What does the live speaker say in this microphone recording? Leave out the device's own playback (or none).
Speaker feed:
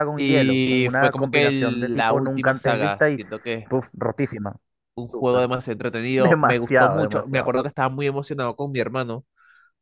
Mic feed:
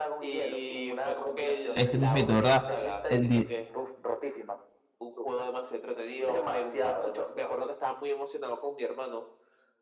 ese mismito, ¿verdad? El di-